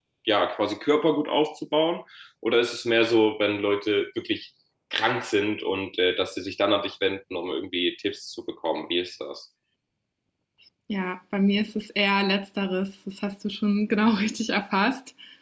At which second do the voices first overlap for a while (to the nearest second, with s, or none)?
none